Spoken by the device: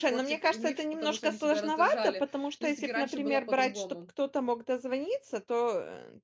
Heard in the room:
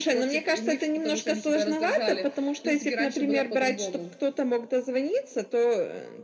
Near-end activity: none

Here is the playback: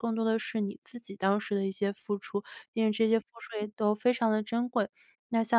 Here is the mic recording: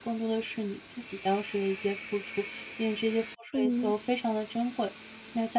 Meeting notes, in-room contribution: present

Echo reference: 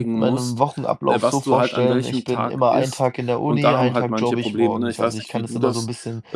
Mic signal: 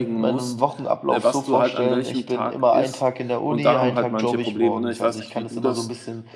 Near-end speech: none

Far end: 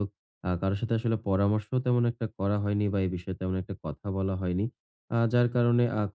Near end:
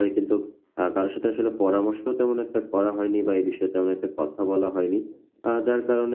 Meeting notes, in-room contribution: none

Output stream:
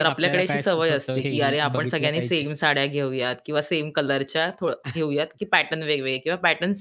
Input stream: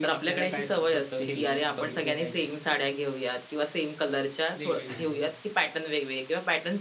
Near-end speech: present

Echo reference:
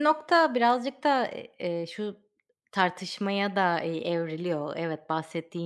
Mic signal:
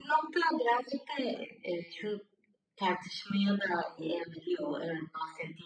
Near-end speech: none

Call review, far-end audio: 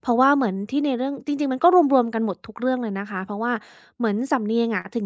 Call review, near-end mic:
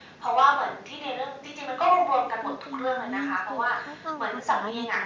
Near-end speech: present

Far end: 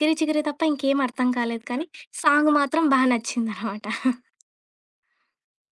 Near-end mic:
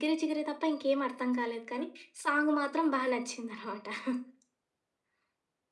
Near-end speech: none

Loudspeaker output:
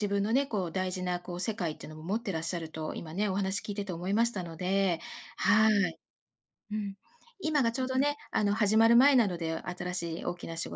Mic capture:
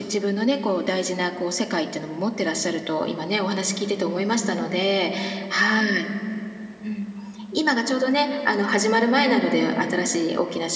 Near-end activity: none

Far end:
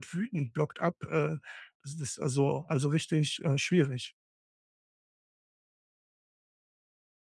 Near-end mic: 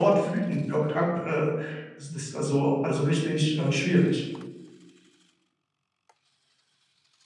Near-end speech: none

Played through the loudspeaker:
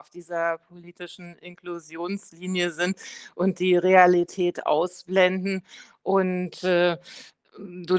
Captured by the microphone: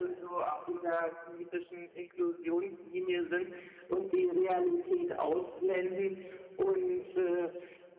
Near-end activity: none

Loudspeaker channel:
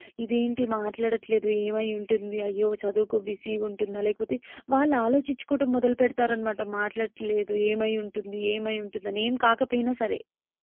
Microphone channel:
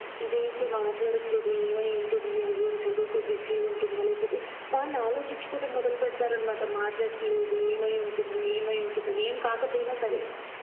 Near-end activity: none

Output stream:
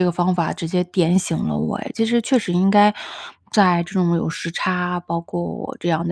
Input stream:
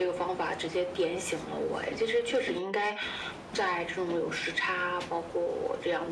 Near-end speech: none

